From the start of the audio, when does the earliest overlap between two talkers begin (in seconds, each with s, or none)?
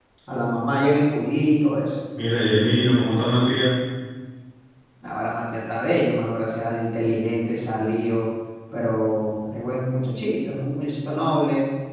none